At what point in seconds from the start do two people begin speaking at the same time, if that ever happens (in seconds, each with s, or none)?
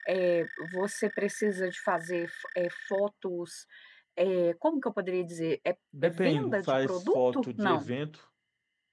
5.9 s